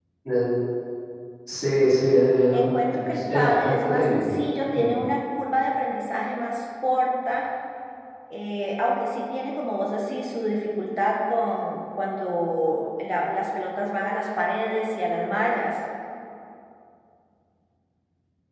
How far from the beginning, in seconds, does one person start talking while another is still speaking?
2.5 s

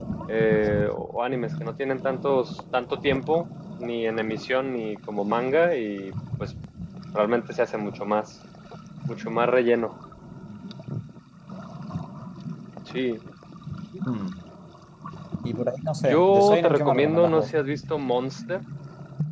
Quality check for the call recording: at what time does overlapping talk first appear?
16.1 s

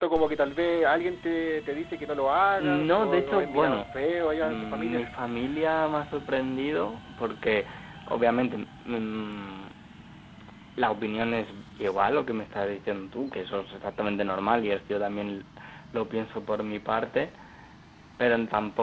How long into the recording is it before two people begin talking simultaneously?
2.6 s

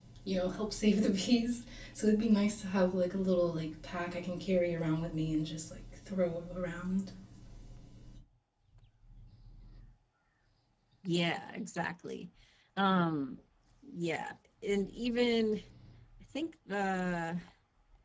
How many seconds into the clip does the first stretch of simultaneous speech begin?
none

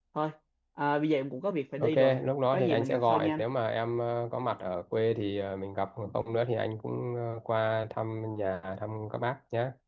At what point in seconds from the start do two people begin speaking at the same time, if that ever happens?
1.8 s

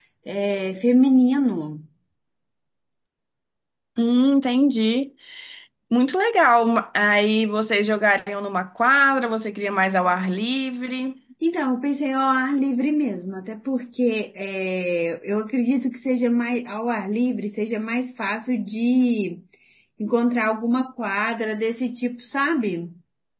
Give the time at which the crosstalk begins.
none

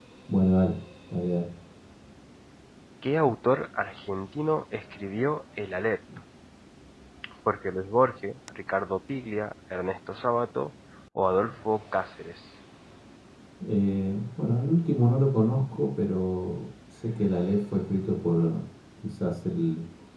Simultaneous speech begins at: none

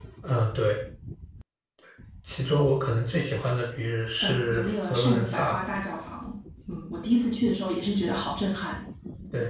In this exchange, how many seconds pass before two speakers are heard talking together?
4.2 s

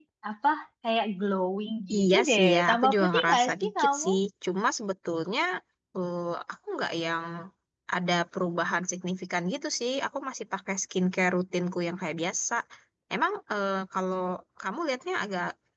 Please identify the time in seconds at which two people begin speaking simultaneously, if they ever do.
1.9 s

